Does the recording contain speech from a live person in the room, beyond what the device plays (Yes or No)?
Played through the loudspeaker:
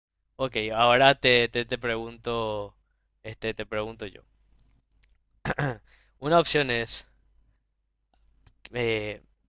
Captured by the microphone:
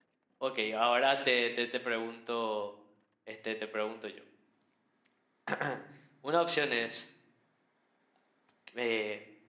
No